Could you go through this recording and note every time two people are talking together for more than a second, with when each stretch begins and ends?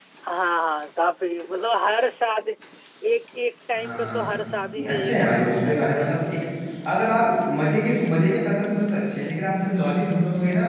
4.8-6.2

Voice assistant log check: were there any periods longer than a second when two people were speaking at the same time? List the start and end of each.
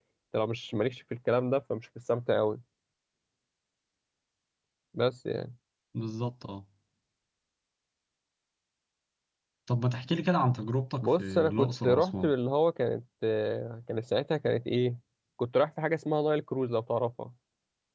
11.0-12.3

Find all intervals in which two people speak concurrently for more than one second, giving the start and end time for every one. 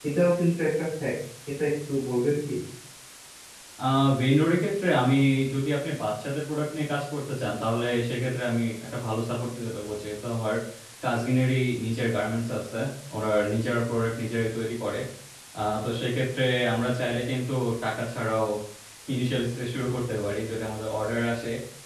none

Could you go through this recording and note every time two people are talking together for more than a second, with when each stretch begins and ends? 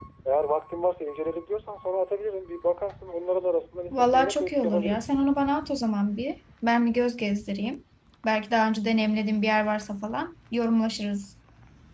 3.9-5.1

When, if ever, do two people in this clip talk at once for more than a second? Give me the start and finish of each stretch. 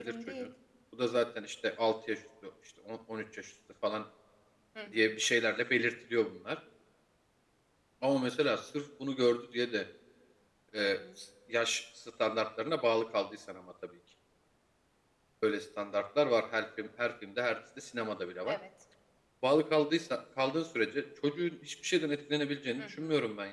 none

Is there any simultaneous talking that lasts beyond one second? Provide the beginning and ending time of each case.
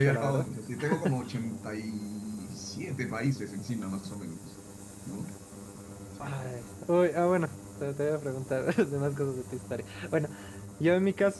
none

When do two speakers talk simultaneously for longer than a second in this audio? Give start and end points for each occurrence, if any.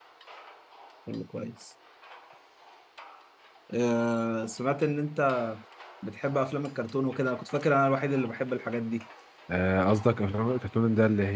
none

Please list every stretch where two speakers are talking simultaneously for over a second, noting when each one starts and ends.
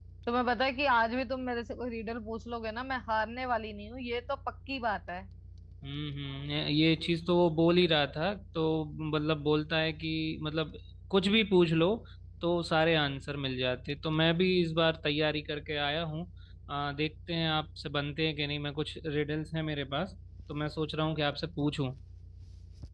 none

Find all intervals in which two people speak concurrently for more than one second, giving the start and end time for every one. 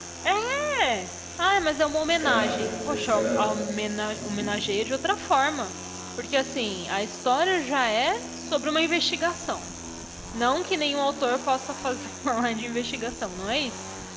2.0-3.5

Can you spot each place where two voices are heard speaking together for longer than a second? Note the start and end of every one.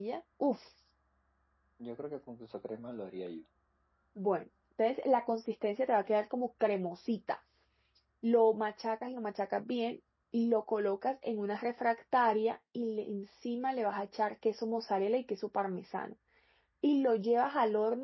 none

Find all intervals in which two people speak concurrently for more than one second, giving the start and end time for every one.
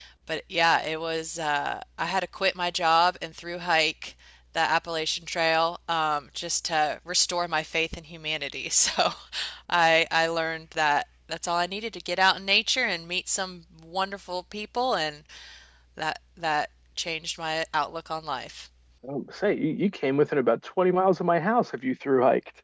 none

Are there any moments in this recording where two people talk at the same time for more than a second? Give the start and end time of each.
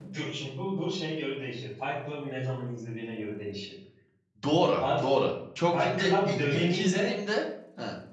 5.7-7.1

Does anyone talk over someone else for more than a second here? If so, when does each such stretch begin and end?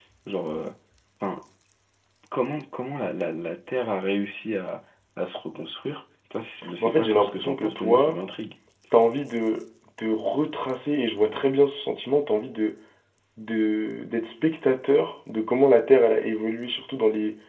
6.8-8.2

